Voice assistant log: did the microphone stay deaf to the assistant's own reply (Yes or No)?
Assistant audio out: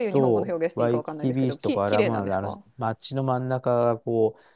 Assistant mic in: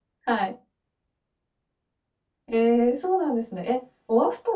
Yes